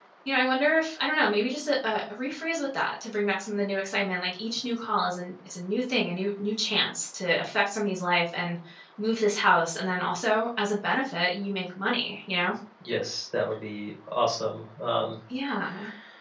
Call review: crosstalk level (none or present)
none